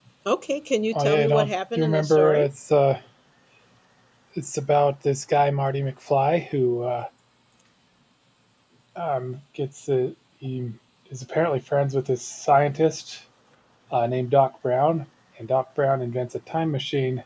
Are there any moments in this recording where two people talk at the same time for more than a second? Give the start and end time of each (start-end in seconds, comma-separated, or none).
0.9-2.5